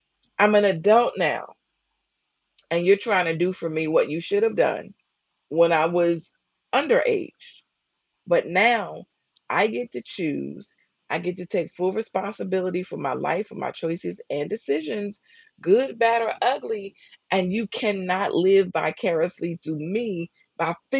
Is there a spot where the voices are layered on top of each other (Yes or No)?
No